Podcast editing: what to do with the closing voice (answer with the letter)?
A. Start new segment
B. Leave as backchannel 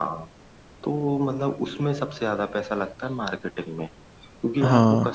B